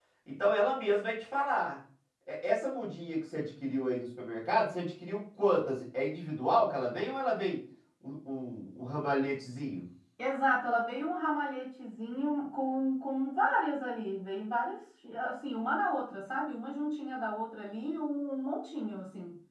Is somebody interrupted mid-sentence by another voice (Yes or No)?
No